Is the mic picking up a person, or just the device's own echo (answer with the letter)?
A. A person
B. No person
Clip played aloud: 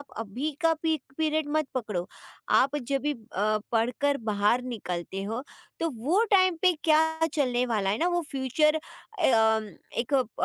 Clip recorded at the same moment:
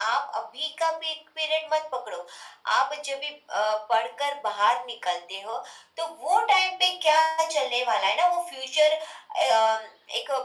B